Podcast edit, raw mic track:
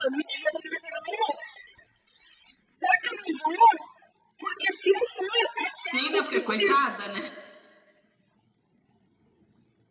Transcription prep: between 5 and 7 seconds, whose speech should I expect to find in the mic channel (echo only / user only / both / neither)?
both